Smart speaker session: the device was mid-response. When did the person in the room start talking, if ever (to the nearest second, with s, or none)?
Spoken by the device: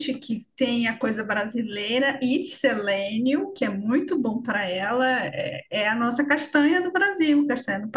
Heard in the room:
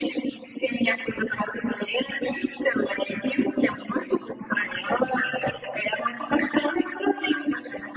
none